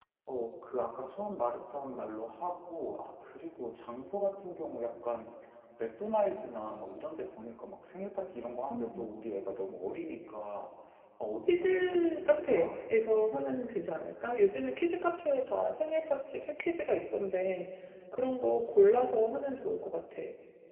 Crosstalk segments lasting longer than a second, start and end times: 11.5-12.8

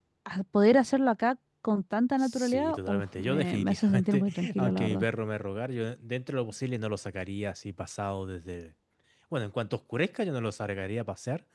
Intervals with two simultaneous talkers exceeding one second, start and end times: 2.2-5.0

